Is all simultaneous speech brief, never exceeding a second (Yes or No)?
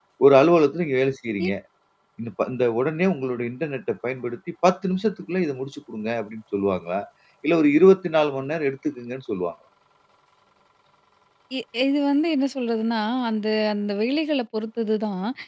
Yes